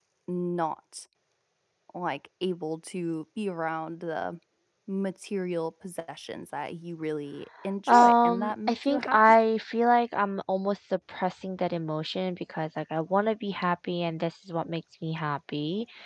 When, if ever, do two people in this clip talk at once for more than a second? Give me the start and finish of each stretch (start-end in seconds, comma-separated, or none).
7.9-9.2